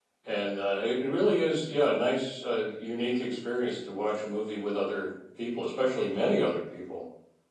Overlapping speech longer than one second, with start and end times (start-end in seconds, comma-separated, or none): none